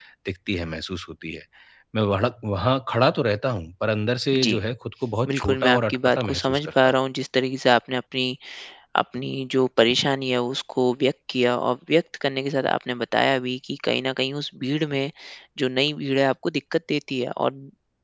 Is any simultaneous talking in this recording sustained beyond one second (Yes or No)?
Yes